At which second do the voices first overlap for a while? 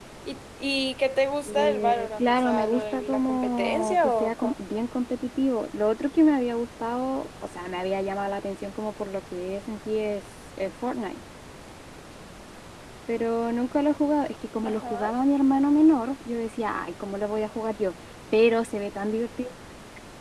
1.5 s

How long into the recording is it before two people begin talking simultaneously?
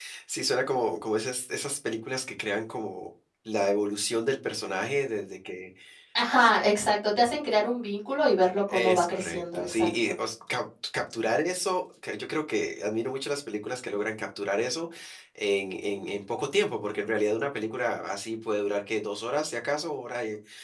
8.7 s

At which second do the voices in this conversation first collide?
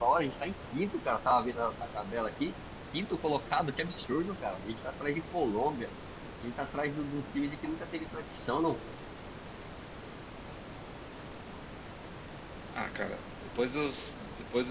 none

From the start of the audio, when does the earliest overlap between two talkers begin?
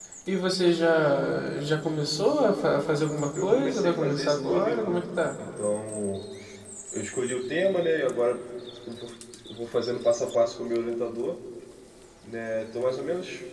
3.4 s

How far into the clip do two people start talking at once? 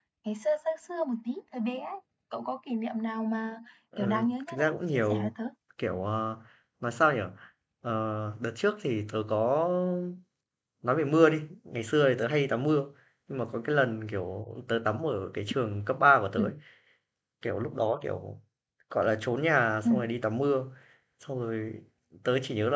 4.0 s

